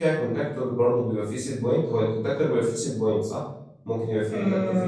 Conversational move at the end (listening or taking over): taking over